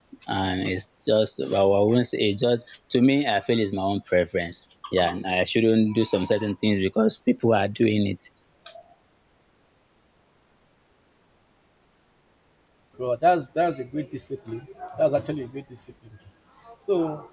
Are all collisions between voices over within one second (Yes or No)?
Yes